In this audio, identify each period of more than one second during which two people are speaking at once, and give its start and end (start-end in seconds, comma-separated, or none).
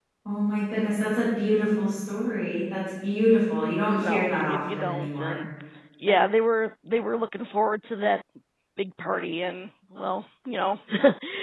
4.0-5.3